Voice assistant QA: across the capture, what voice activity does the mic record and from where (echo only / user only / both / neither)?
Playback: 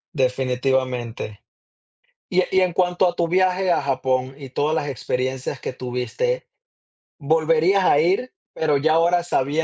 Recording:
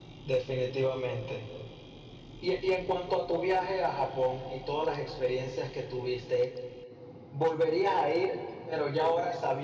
echo only